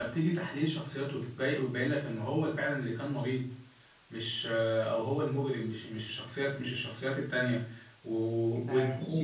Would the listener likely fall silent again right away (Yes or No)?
Yes